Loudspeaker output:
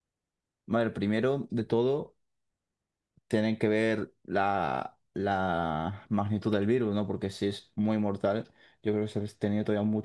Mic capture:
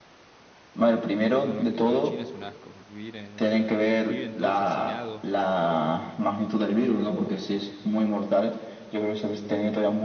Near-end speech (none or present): present